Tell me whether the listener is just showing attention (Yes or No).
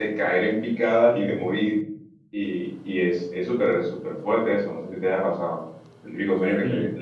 No